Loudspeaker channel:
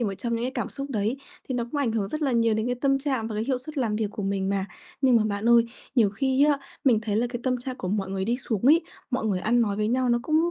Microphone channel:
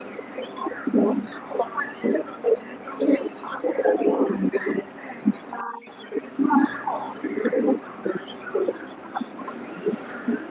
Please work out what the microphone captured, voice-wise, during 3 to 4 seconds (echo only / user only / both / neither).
echo only